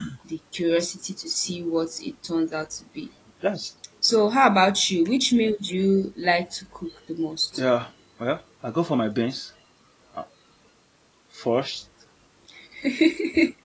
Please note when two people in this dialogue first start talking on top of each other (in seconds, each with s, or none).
none